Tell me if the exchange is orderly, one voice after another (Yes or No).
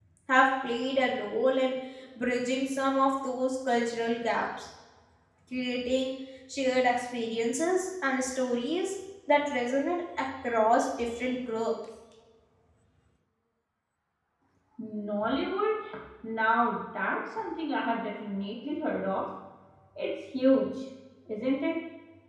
Yes